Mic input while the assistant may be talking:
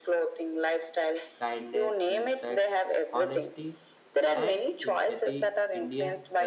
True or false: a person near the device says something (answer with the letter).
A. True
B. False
A